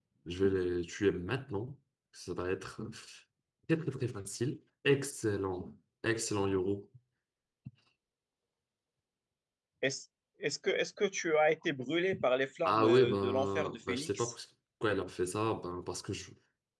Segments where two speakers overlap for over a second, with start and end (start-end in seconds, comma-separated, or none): 12.6-14.3